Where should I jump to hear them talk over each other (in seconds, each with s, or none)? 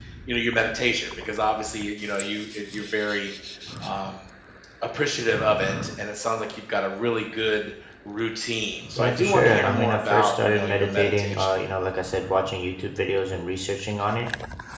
8.9 s